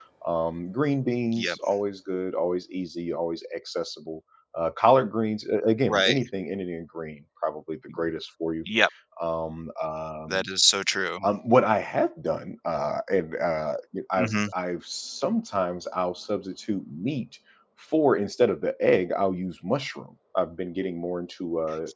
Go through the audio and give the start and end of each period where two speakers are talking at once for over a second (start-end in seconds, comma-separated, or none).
none